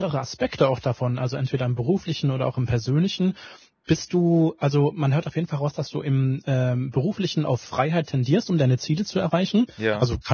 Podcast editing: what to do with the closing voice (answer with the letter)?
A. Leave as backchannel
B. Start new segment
A